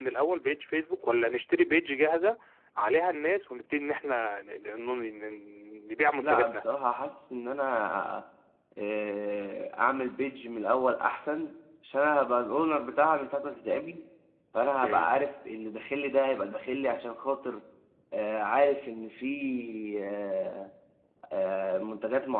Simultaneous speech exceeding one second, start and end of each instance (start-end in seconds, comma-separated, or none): none